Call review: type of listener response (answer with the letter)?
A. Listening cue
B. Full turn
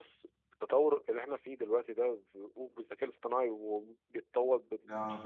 A